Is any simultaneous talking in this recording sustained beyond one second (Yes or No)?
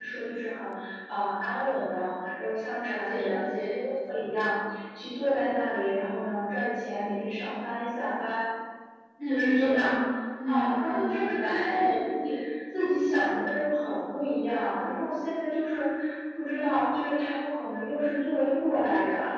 Yes